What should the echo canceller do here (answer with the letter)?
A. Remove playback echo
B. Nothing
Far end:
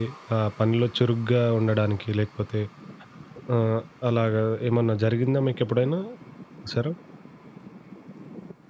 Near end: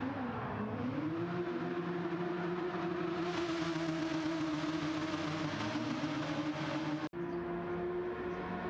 B